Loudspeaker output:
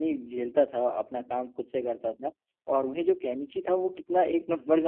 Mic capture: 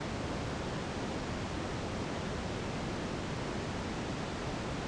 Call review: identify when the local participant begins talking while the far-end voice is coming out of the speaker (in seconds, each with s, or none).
none